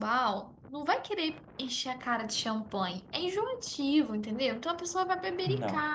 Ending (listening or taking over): listening